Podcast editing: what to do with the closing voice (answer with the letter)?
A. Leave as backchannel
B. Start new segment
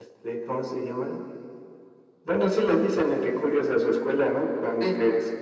A